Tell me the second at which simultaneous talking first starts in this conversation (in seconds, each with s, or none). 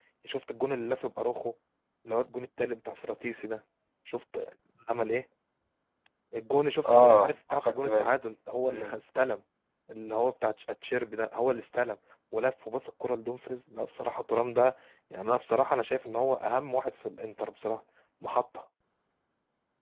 6.9 s